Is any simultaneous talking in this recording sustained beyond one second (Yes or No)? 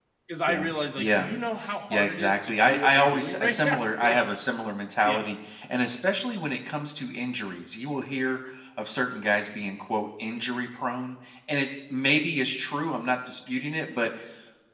Yes